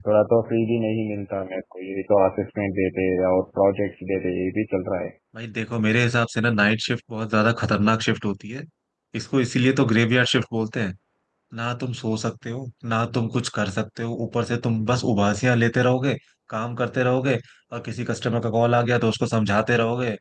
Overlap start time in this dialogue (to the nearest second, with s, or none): none